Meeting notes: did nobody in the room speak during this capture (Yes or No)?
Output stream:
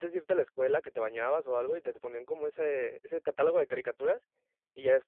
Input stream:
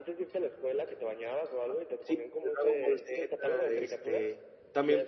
No